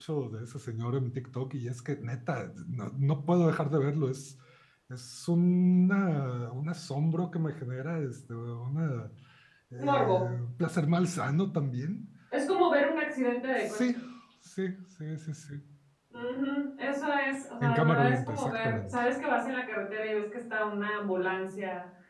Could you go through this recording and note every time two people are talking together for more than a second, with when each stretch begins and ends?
17.7-19.0

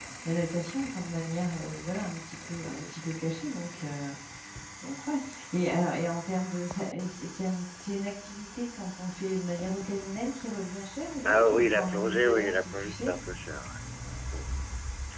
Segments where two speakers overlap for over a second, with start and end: 11.2-13.1

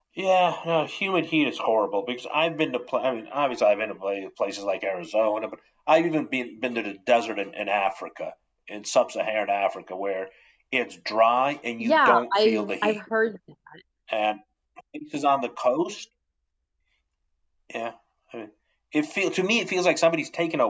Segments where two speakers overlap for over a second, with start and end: 11.8-13.0

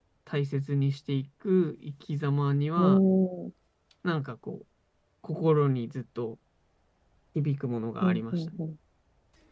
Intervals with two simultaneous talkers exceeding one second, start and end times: none

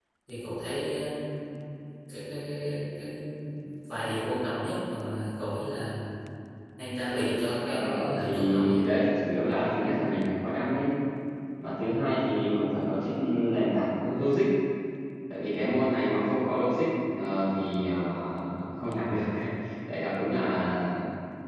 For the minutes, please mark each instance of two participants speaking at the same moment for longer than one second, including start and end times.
7.6-8.9

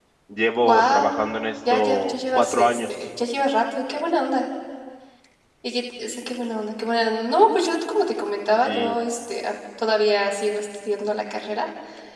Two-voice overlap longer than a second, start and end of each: 1.7-2.9

